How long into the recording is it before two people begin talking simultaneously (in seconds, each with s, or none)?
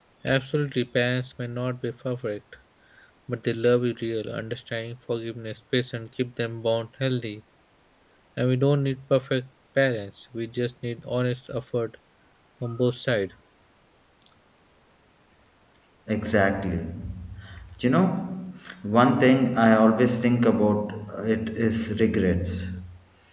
none